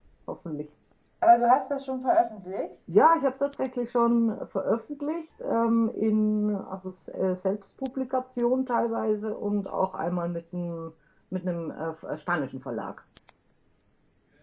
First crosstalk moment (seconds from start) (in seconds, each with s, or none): none